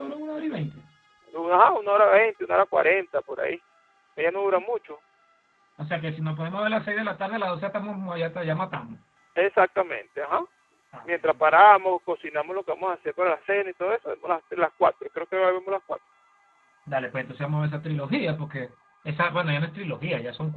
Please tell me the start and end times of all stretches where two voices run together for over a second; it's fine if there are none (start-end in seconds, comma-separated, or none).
none